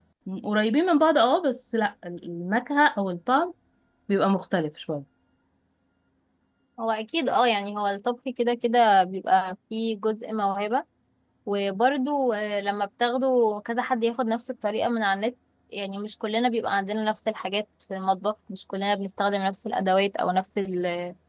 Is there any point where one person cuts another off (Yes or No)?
No